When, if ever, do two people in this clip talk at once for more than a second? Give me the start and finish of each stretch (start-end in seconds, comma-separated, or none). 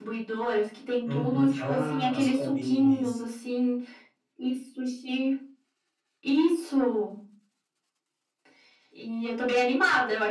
1.0-3.2